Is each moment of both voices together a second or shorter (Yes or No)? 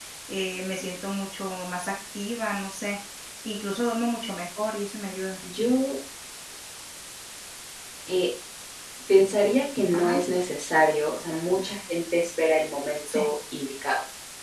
Yes